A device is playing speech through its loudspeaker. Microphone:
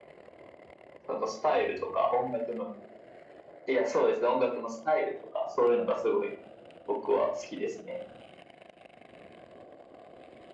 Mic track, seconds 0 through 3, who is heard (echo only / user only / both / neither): echo only